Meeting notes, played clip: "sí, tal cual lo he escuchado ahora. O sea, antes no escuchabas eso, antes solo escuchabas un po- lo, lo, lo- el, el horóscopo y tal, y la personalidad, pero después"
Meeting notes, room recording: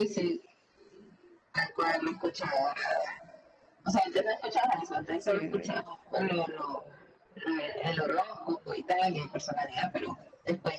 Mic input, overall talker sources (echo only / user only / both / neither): both